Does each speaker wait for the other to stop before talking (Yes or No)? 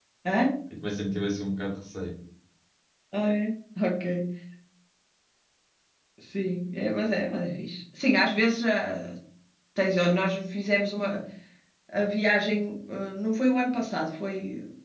Yes